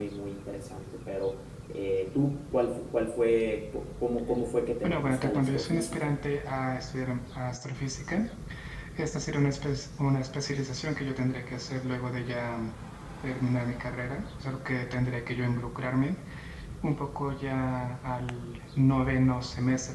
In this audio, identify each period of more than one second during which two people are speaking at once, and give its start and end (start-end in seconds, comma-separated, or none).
4.8-6.2